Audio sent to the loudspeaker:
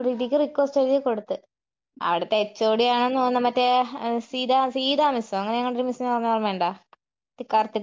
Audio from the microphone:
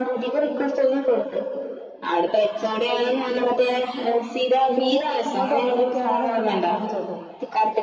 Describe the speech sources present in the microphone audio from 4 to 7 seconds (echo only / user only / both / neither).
both